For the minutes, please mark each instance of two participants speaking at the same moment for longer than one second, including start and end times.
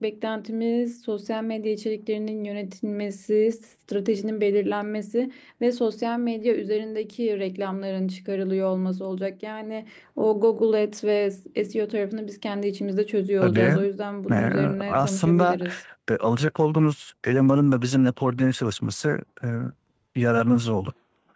14.3-15.6

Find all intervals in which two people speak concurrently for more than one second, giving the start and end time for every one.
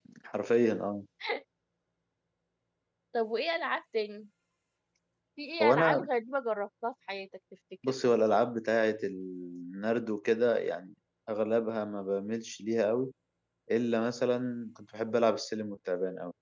none

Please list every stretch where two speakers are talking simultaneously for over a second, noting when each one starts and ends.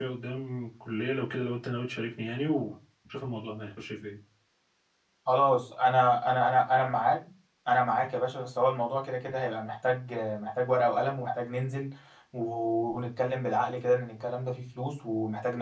none

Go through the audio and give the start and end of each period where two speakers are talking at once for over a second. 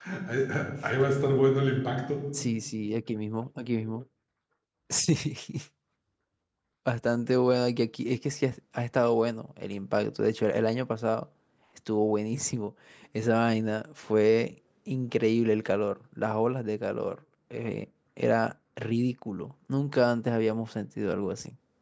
none

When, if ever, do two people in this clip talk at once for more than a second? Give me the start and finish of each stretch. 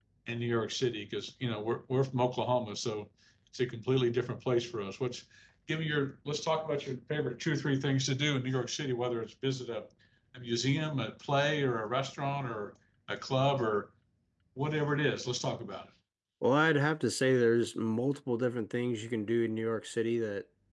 none

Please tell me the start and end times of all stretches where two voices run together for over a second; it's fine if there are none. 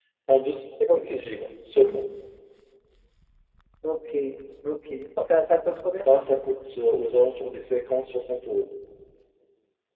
none

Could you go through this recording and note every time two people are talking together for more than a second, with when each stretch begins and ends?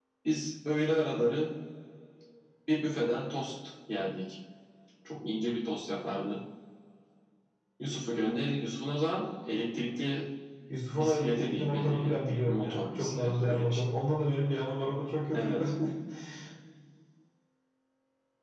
10.9-13.8

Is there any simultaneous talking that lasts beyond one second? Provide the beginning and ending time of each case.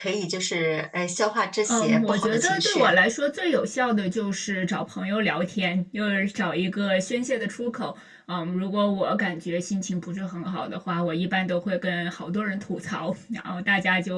1.7-3.0

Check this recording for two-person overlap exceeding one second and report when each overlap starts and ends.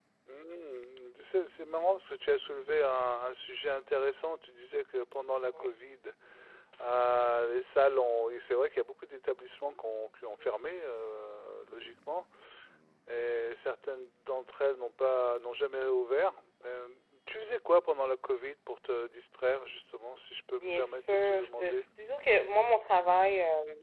20.5-21.9

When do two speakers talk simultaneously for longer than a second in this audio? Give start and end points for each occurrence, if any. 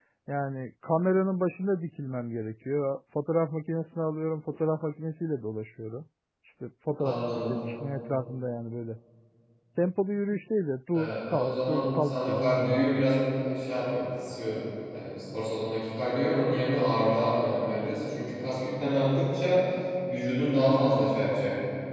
10.9-13.0

